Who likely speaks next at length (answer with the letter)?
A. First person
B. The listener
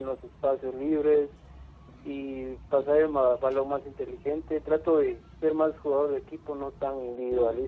B